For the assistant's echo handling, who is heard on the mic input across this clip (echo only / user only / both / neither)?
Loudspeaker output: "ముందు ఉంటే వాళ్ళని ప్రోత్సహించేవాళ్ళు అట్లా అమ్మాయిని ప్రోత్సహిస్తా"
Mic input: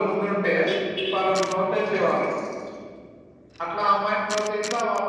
echo only